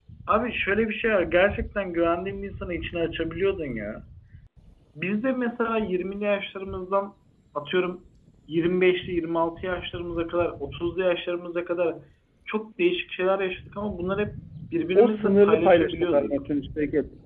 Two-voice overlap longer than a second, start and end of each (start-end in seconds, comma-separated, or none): 14.9-16.4